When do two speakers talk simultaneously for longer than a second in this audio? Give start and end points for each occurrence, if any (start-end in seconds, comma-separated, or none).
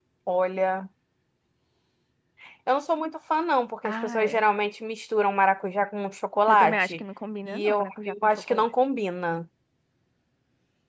7.5-8.7